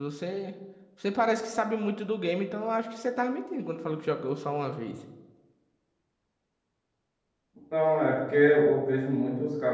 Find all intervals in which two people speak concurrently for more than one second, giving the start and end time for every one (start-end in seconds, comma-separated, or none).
none